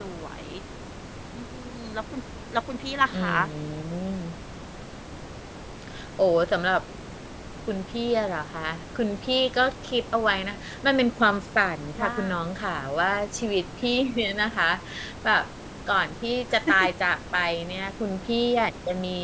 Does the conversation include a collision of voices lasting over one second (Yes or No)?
No